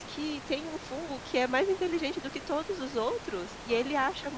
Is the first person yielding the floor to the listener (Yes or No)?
No